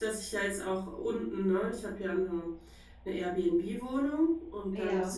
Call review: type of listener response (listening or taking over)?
listening